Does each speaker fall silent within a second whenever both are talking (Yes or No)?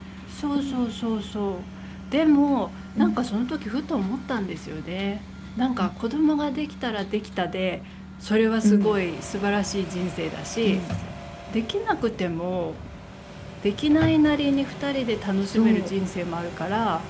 Yes